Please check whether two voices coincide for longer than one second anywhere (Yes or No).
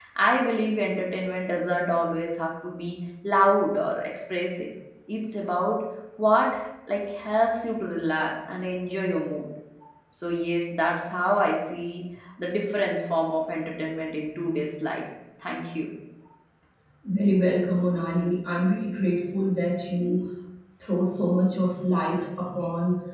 No